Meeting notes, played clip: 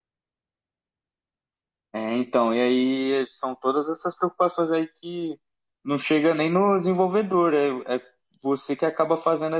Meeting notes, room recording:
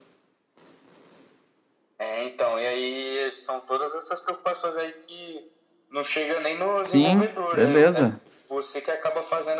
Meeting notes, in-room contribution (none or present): present